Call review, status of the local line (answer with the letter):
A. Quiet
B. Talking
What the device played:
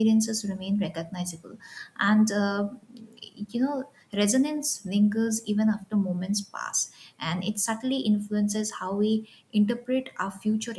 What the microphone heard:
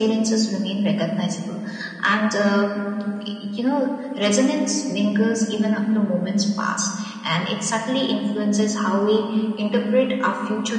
A